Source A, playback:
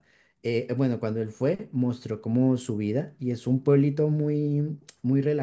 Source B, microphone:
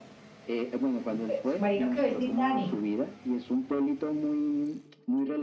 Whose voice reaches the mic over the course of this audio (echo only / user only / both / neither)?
both